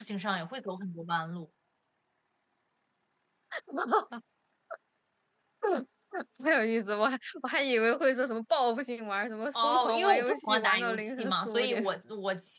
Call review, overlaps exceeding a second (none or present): present